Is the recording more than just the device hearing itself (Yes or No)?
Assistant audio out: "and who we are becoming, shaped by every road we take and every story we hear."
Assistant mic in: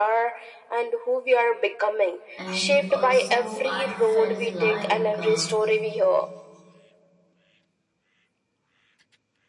Yes